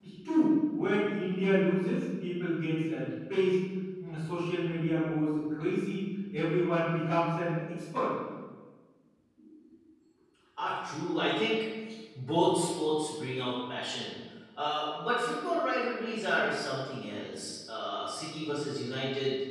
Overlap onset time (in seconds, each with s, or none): none